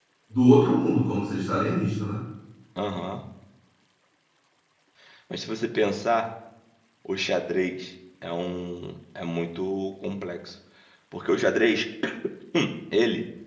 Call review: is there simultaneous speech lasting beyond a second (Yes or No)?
No